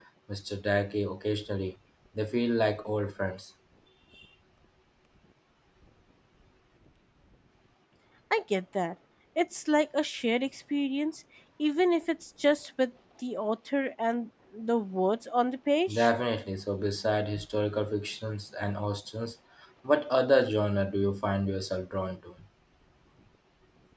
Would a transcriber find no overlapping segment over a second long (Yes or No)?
Yes